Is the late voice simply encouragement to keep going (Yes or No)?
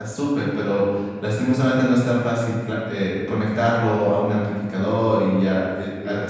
Yes